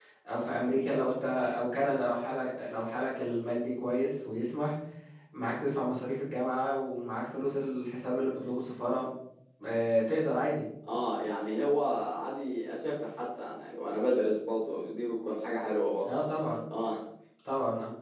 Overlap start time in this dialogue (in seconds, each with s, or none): none